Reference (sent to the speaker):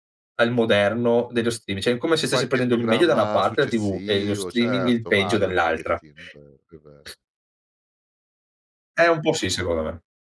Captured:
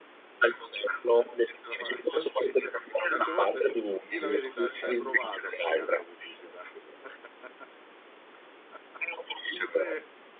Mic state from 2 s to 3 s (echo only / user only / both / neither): both